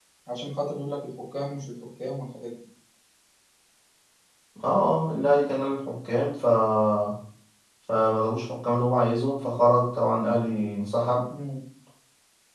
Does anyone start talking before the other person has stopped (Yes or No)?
No